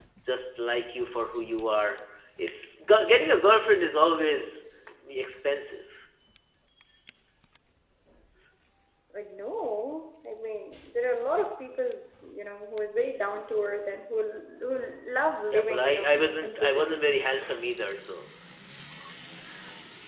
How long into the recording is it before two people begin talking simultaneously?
15.5 s

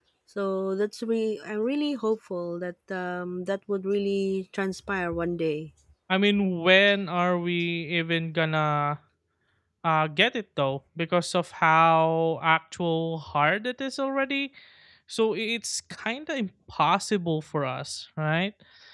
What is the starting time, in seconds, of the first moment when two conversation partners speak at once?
none

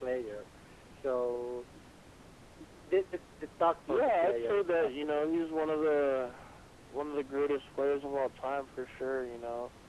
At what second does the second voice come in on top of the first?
3.9 s

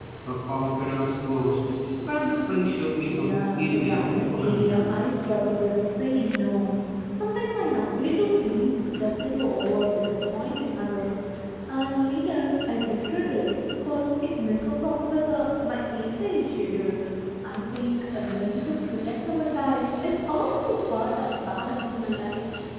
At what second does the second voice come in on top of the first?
3.1 s

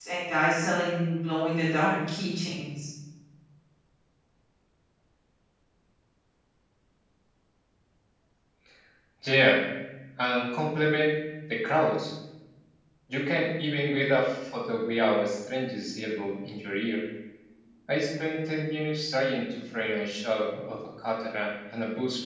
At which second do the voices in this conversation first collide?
none

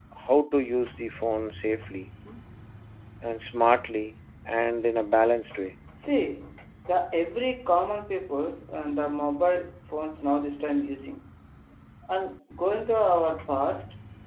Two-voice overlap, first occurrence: none

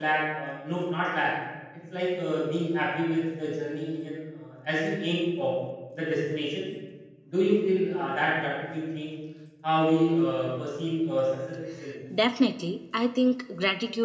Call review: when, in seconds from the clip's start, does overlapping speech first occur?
none

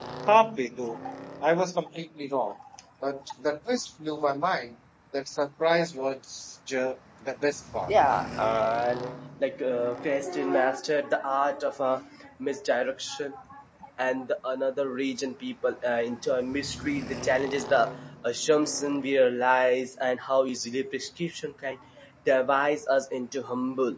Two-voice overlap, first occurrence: none

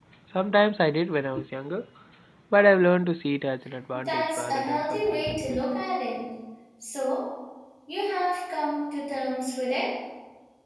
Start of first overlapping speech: 3.9 s

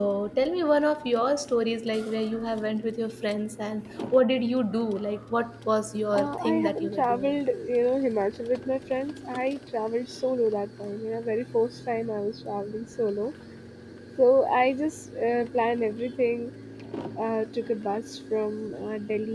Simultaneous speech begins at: 6.1 s

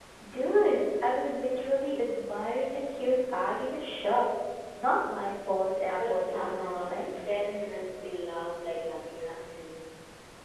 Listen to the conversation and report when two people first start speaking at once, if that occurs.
5.9 s

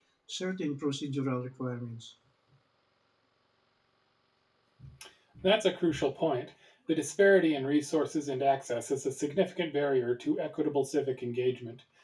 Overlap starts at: none

